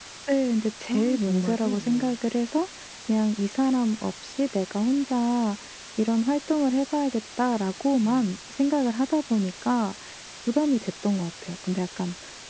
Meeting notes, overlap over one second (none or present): present